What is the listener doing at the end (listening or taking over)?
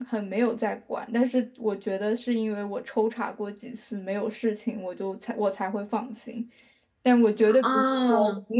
listening